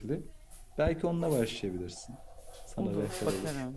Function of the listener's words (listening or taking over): taking over